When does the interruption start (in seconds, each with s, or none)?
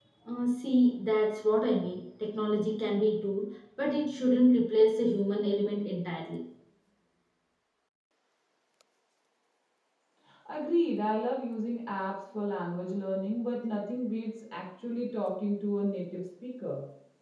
none